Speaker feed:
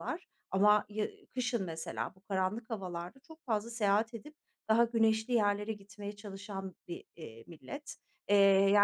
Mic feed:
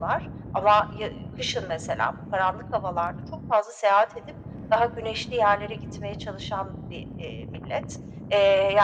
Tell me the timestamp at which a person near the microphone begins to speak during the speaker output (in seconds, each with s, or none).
none